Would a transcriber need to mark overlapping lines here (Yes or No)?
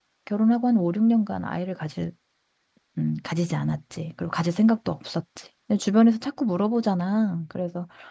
No